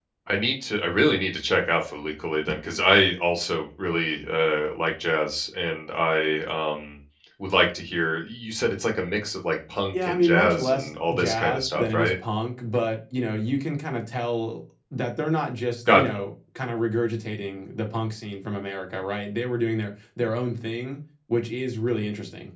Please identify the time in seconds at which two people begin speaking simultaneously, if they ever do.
9.9 s

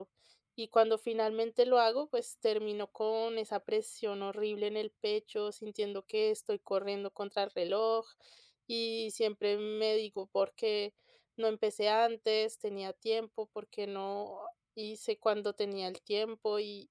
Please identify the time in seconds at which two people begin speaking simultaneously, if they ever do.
none

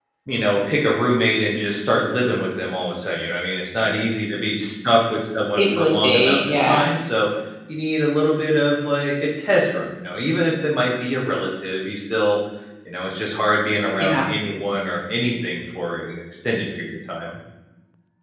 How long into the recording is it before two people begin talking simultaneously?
5.5 s

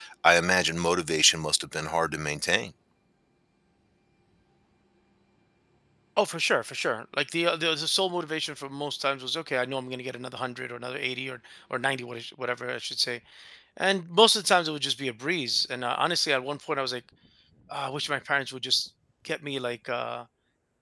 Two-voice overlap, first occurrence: none

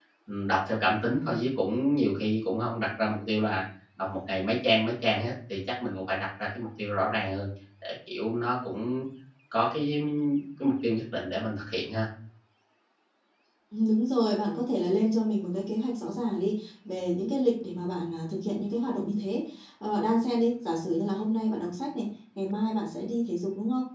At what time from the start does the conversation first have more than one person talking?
none

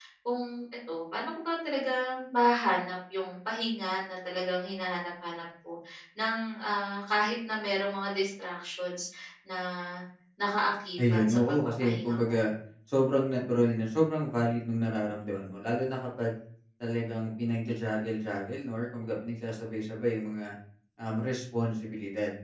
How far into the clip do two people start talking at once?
11.0 s

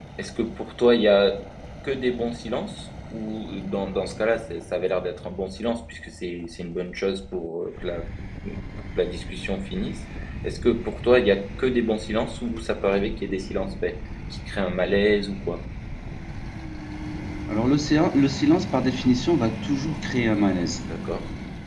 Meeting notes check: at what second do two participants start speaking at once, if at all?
none

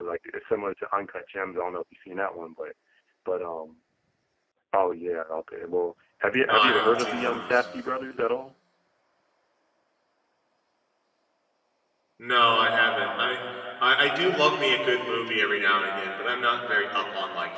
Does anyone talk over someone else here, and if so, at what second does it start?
6.4 s

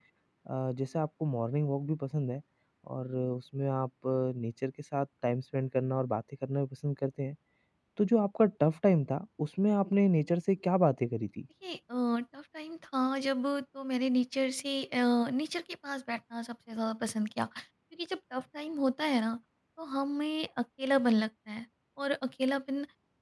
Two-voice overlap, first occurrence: none

